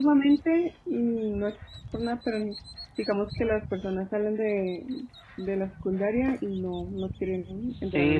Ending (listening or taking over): taking over